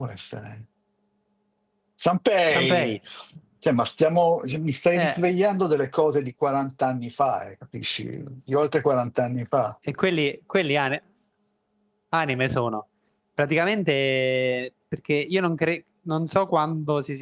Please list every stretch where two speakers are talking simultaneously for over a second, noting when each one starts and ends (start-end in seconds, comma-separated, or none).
none